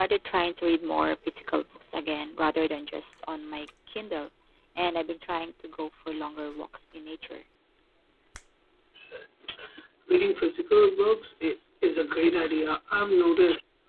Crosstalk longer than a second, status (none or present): none